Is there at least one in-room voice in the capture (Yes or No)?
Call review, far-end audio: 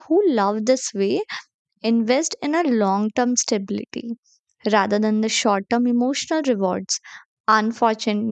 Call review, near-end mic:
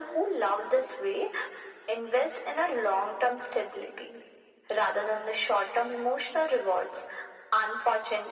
No